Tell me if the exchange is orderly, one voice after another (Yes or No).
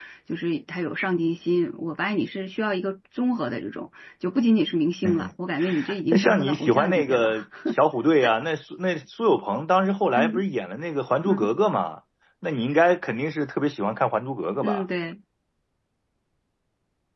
No